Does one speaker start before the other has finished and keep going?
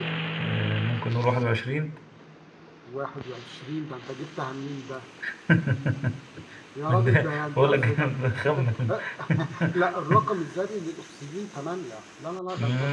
Yes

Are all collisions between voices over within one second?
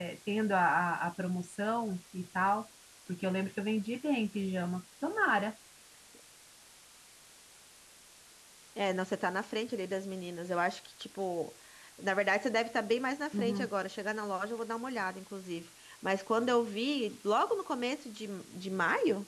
Yes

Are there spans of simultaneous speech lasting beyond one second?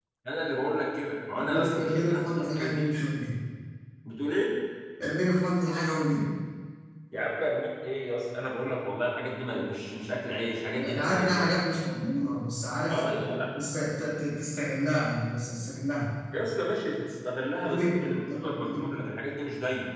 Yes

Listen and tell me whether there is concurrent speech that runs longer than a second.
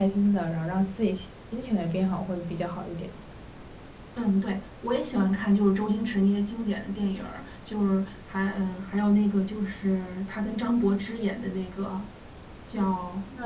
No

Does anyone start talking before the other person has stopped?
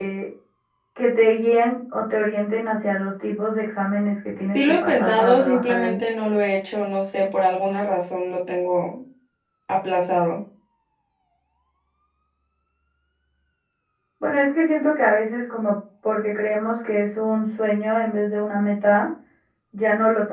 Yes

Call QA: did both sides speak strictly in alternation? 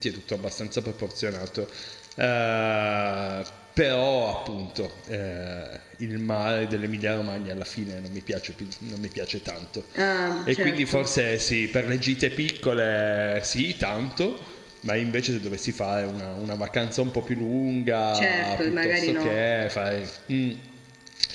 No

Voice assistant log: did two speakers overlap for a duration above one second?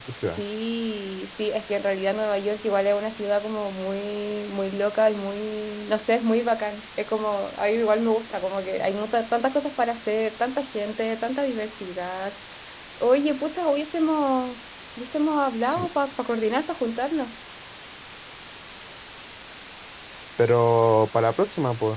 No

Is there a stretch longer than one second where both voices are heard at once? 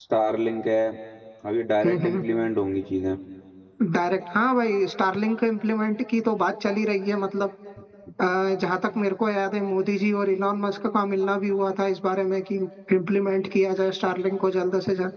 No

